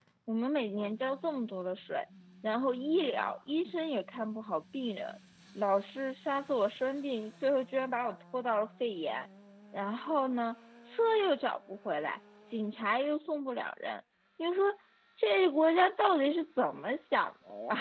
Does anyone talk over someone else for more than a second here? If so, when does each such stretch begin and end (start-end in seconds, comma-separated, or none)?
none